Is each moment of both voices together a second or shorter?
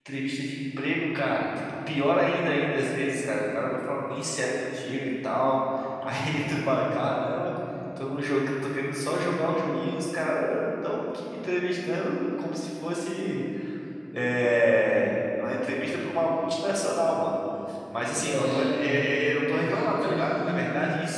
No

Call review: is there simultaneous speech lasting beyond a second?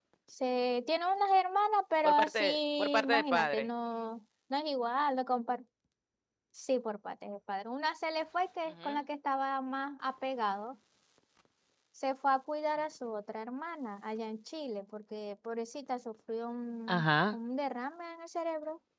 Yes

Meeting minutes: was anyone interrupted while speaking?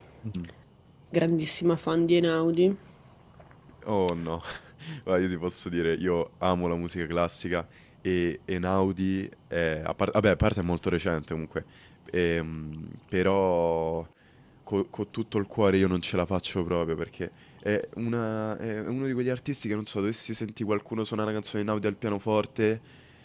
No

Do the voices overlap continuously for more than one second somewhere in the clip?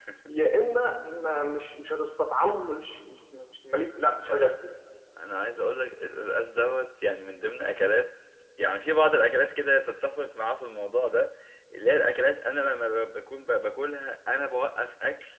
No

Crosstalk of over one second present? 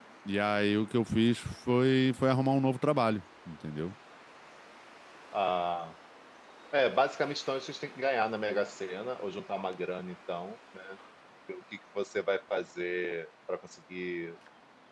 No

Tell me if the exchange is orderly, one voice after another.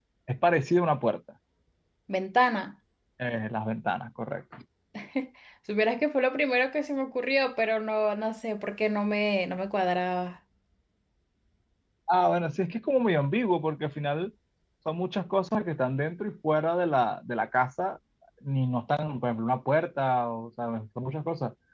Yes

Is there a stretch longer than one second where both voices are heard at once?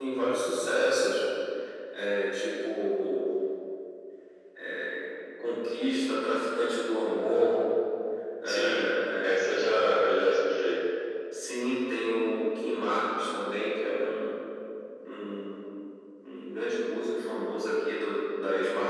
No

